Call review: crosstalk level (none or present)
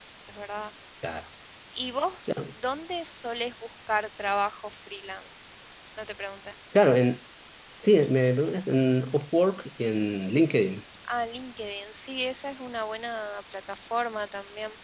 none